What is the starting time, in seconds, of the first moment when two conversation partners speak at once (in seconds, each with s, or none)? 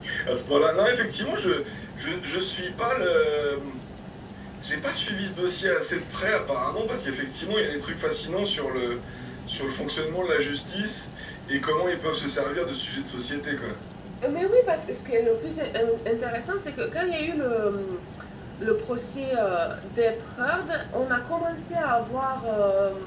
none